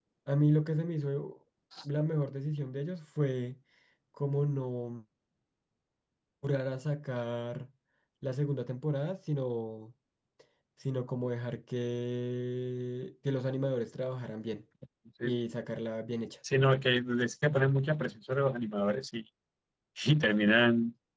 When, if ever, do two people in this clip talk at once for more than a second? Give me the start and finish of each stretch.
none

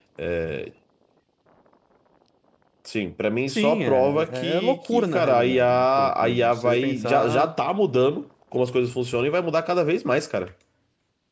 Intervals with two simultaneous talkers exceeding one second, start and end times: 3.5-7.5

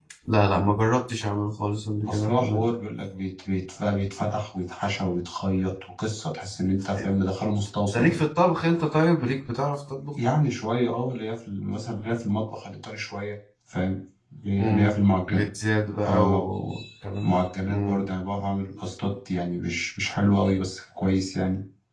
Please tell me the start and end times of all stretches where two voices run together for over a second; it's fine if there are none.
none

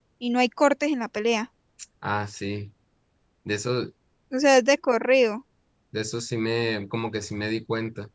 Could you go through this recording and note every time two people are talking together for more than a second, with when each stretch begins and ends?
none

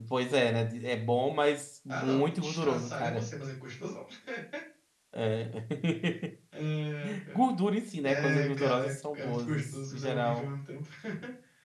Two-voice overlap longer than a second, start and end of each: 1.9-3.4, 8.0-10.5

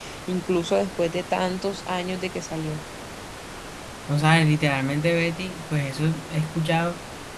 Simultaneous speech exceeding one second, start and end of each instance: none

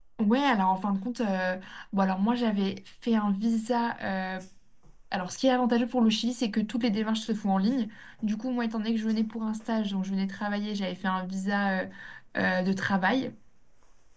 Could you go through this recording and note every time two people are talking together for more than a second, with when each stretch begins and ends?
none

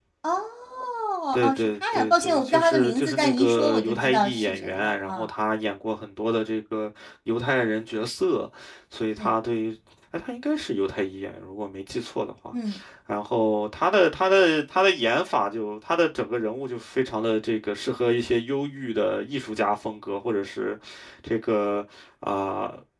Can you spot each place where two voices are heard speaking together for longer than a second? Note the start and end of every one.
1.4-5.3

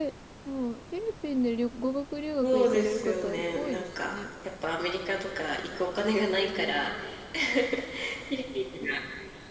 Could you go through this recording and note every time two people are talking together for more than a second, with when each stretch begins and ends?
2.4-4.2

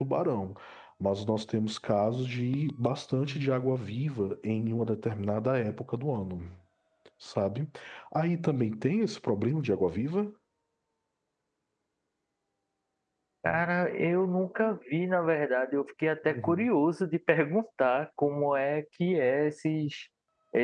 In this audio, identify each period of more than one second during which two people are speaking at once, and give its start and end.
none

